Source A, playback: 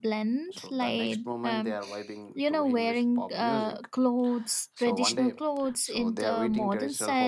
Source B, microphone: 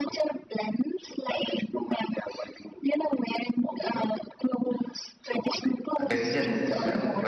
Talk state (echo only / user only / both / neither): both